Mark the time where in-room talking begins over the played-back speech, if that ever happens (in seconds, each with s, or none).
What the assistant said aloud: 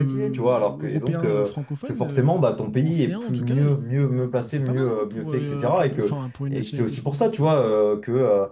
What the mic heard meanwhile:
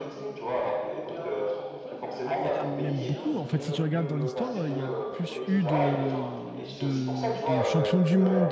2.2 s